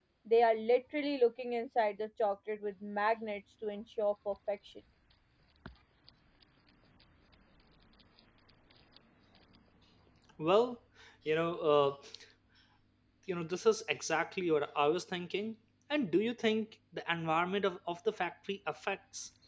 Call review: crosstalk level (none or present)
none